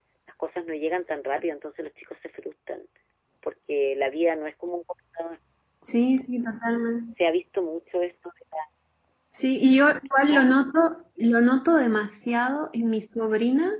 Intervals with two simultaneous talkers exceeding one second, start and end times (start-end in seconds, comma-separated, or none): none